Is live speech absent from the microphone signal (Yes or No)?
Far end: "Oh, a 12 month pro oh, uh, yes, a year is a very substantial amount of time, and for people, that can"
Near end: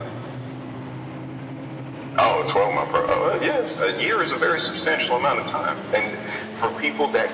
Yes